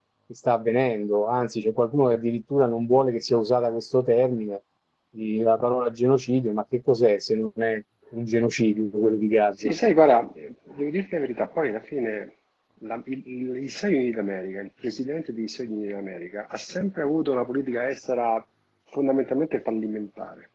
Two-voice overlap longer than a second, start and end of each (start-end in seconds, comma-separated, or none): none